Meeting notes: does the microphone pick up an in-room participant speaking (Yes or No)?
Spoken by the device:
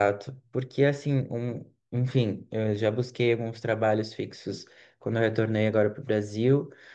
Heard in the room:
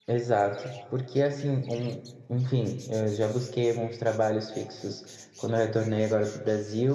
No